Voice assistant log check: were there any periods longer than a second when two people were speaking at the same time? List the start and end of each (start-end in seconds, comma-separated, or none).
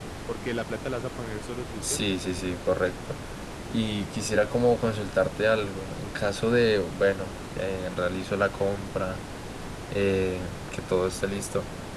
none